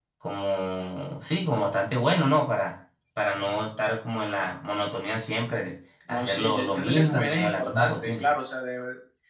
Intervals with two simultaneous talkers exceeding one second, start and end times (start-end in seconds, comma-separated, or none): 6.1-8.3